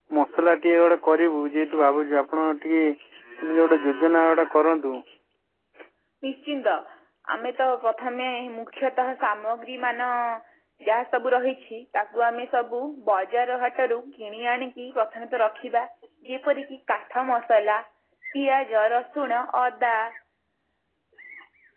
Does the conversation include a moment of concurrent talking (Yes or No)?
No